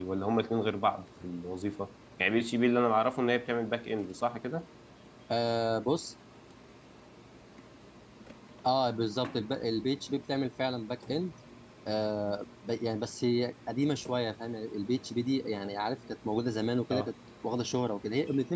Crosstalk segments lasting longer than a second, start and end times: none

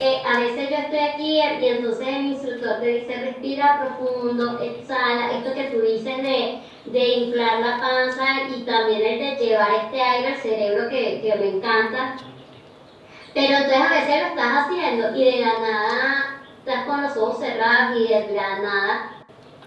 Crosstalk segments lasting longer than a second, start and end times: none

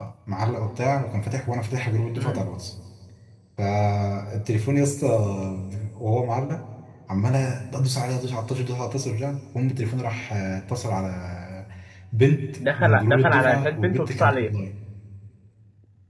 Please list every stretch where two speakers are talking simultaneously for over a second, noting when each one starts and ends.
12.8-14.6

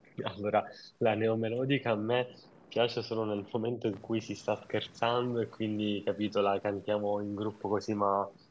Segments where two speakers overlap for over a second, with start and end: none

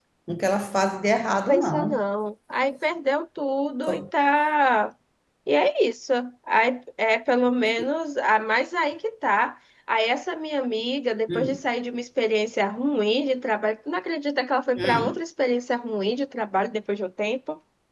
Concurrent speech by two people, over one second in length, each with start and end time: none

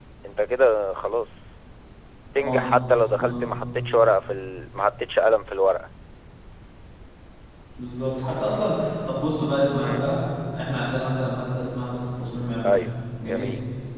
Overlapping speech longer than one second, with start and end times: none

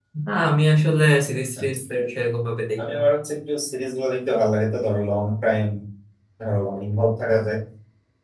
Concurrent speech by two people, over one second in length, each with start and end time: none

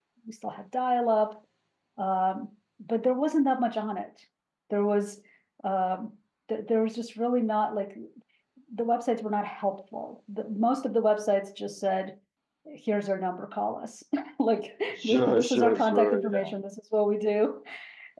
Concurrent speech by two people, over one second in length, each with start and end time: 15.0-16.5

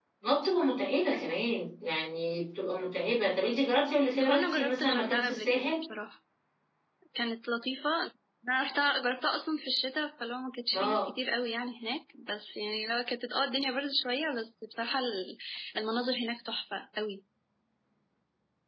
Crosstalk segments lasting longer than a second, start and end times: 4.2-5.7

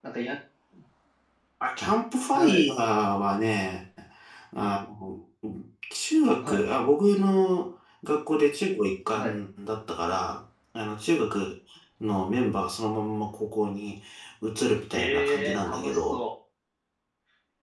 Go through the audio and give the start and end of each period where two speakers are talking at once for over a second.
14.9-16.2

